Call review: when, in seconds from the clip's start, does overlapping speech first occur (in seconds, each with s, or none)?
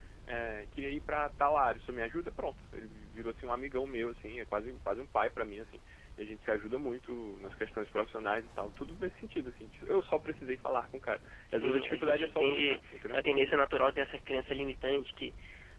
11.5 s